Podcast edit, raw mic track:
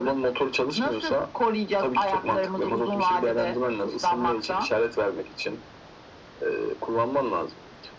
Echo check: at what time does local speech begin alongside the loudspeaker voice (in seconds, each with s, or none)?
none